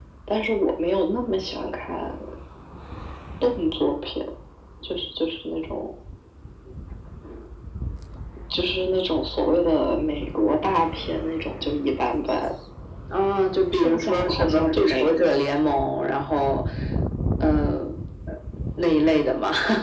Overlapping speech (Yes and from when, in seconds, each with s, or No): Yes, from 13.7 s